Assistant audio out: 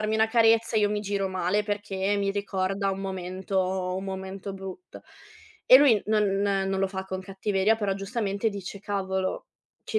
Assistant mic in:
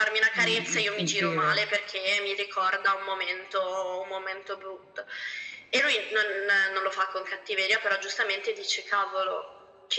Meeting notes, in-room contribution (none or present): present